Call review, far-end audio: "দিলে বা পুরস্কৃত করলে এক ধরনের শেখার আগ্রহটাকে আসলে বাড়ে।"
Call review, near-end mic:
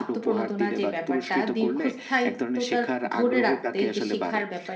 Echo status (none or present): present